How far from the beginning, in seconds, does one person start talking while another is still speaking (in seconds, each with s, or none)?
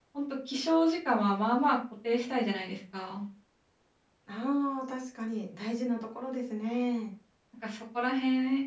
none